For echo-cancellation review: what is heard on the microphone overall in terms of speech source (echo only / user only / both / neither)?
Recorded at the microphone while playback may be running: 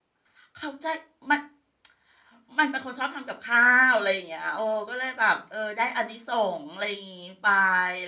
user only